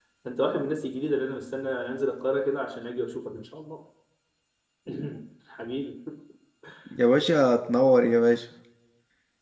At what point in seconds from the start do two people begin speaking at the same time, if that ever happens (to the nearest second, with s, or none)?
none